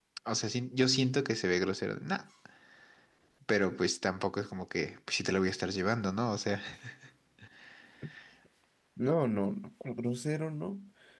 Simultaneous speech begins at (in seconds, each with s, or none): none